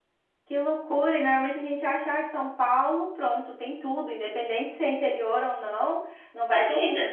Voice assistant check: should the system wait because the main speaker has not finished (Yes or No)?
Yes